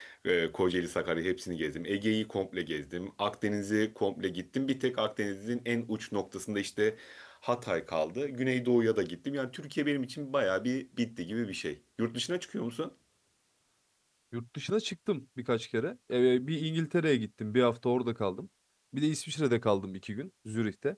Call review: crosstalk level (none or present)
none